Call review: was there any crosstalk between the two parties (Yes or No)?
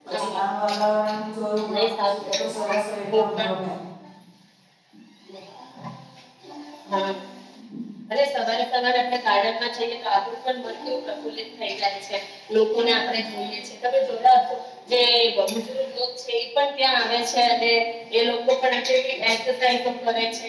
Yes